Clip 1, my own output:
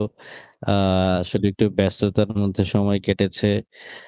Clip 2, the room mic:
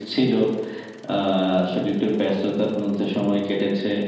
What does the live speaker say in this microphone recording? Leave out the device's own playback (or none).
none